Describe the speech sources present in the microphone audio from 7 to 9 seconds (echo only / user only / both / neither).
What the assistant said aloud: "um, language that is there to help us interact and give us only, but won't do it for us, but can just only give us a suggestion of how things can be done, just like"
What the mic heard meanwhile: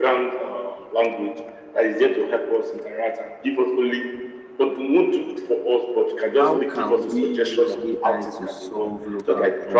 both